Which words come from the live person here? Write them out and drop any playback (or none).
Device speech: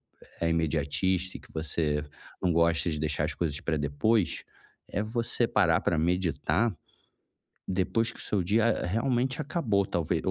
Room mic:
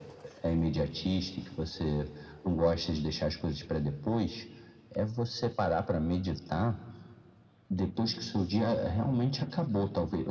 none